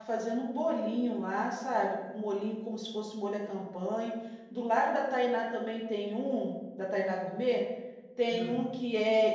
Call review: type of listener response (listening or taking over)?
listening